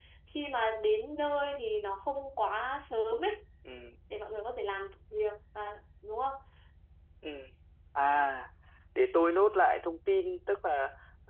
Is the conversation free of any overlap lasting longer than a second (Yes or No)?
Yes